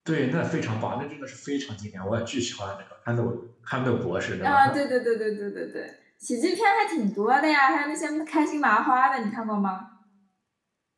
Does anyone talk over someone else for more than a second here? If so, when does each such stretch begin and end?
none

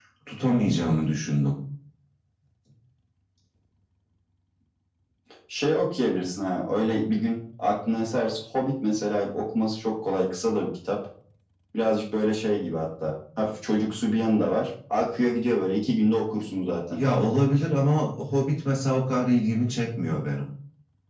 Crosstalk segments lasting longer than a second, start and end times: none

